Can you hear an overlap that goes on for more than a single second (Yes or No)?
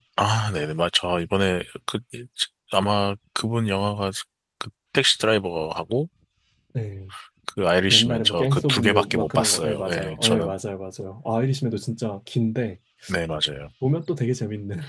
Yes